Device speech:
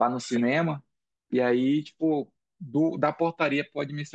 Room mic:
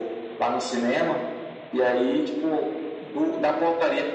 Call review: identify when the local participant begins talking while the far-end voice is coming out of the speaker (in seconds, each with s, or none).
none